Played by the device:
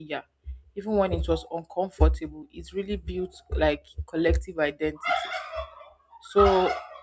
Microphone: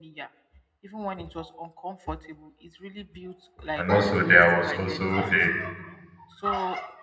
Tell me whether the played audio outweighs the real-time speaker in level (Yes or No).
No